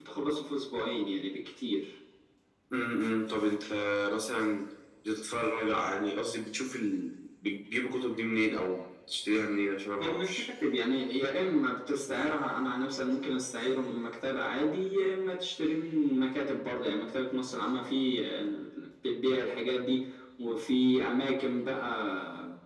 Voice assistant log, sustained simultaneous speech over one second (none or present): none